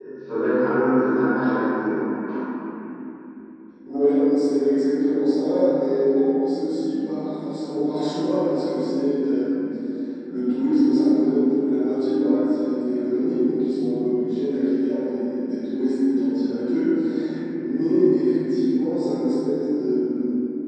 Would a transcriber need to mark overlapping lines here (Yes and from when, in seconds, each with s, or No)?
No